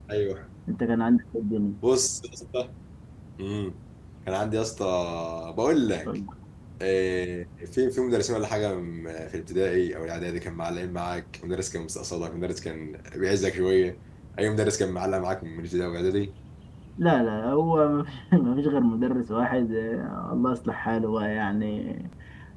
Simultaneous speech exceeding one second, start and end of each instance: none

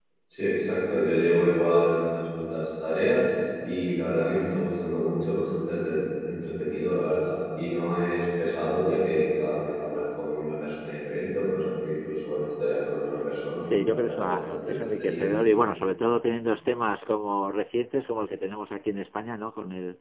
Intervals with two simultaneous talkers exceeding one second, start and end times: 13.7-15.3

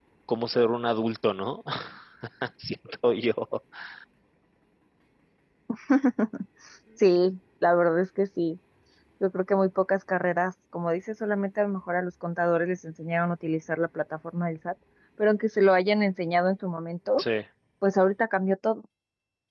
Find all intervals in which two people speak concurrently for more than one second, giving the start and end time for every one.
none

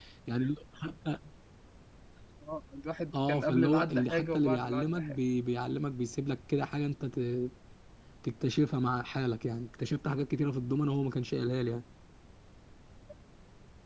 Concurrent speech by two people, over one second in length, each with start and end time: 3.1-5.2

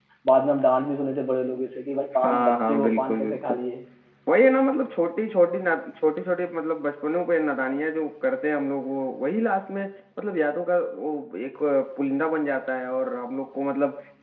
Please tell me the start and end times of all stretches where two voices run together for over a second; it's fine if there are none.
2.2-3.6

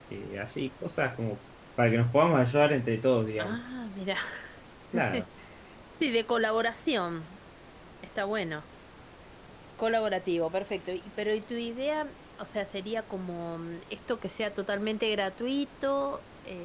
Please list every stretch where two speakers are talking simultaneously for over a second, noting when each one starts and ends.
none

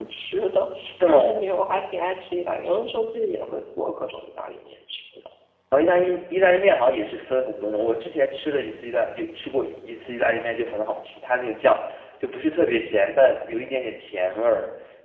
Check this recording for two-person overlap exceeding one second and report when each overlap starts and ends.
none

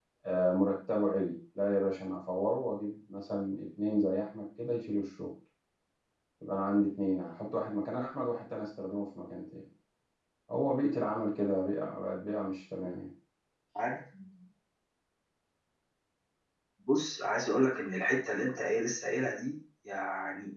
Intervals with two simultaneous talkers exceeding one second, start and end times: none

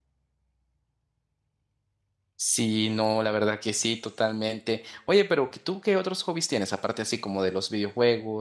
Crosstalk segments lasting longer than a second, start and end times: none

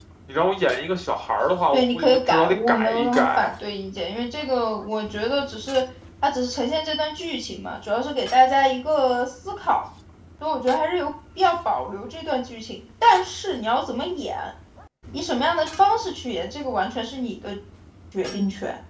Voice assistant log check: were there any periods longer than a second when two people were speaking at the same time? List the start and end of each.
1.7-3.5

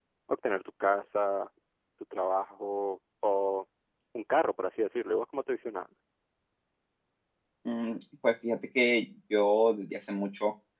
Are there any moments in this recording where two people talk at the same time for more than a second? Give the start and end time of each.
none

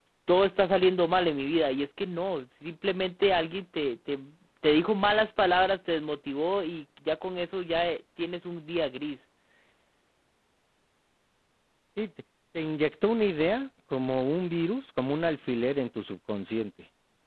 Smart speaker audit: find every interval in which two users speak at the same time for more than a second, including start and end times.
none

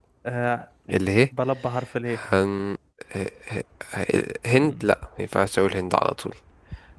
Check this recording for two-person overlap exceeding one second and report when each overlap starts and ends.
none

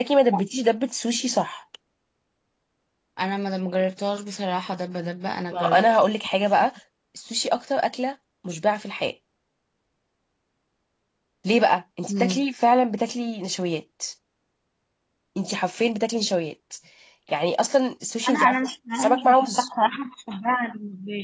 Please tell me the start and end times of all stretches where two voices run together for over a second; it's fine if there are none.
18.3-19.7

